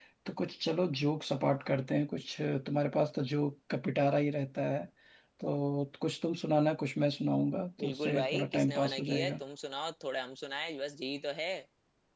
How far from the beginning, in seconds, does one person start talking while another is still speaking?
8 s

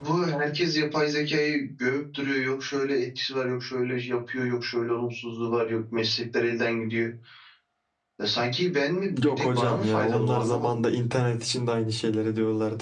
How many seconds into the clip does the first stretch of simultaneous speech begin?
9 s

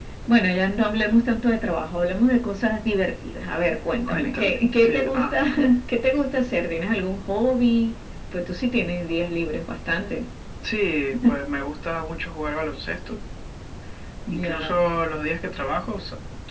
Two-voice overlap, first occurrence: 4 s

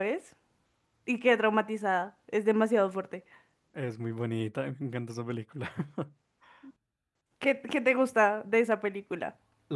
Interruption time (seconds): none

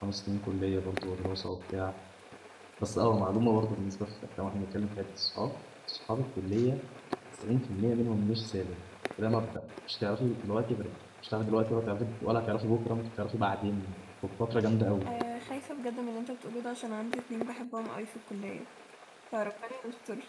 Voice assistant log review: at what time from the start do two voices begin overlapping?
none

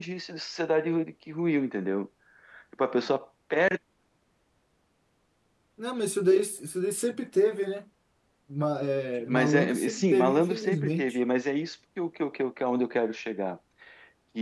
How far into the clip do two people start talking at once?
9 s

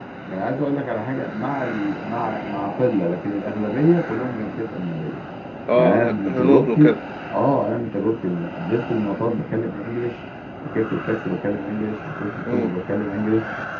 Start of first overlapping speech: 6 s

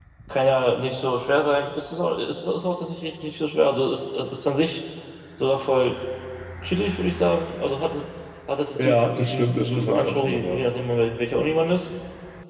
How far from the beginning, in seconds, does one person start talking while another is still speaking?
9 s

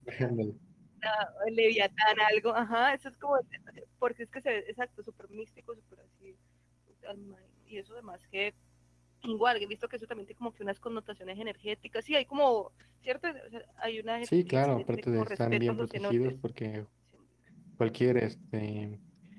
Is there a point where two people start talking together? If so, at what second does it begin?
14 s

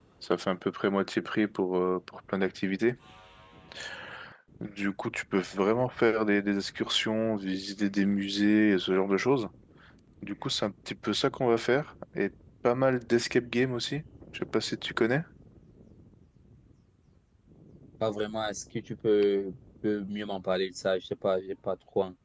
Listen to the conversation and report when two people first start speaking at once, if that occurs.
none

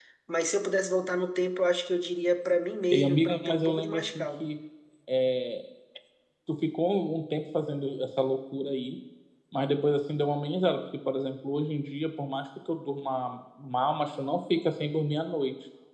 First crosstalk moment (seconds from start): 3 s

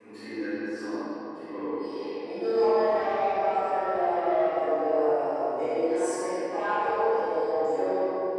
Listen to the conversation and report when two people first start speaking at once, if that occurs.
none

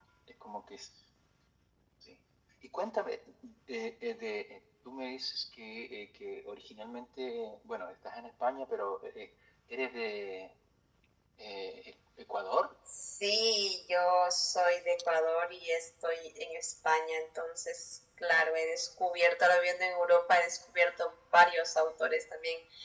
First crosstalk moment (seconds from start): none

